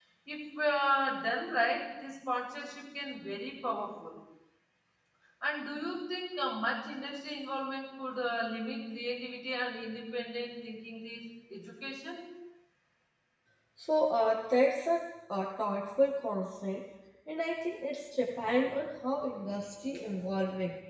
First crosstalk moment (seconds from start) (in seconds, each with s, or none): none